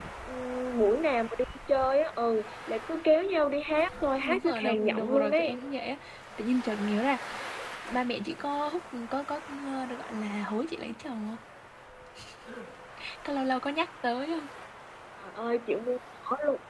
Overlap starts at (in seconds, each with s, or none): 4.2 s